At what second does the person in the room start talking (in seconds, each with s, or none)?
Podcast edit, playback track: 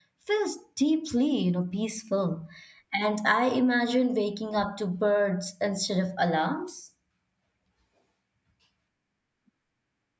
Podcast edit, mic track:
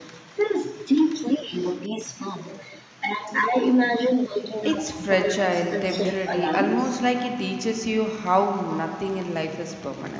4.7 s